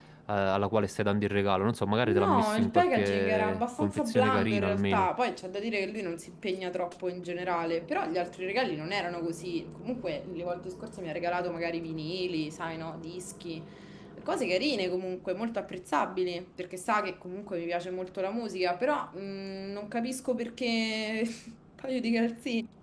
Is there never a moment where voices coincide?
No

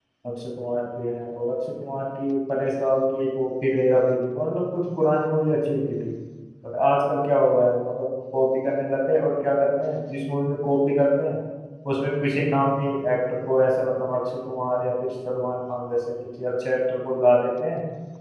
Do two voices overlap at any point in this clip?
No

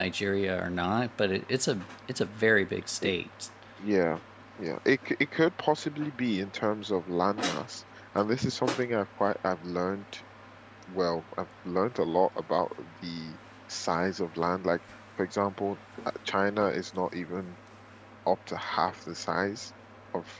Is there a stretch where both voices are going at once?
No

